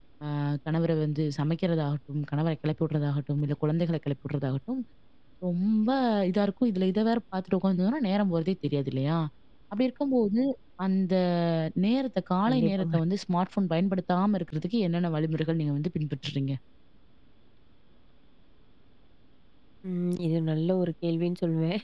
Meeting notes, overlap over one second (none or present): none